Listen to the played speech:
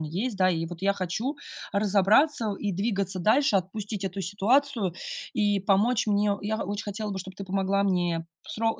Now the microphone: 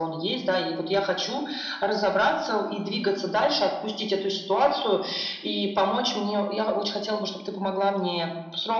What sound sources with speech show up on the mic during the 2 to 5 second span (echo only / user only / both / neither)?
echo only